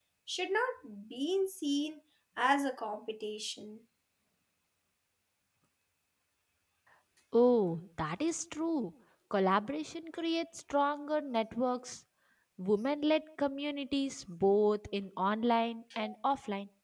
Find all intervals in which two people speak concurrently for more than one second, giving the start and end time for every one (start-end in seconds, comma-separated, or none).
none